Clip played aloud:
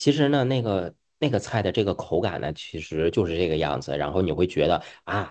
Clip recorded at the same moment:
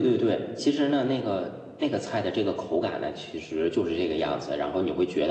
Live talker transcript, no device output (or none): none